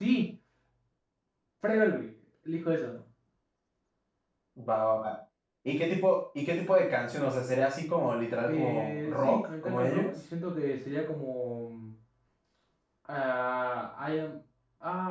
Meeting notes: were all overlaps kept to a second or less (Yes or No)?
No